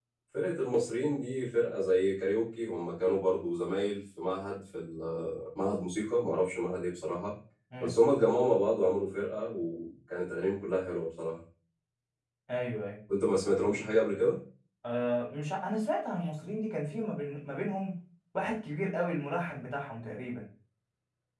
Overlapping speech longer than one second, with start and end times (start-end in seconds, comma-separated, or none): none